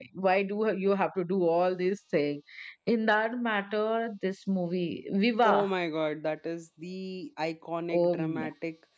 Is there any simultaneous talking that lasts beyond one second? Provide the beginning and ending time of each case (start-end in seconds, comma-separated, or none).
none